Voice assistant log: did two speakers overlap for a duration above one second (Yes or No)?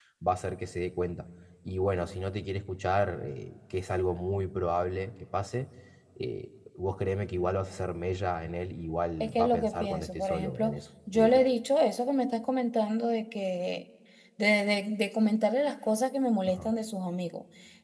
Yes